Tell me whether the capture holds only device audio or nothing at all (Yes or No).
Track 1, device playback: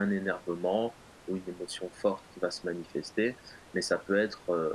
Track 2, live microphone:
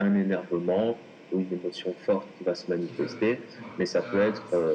No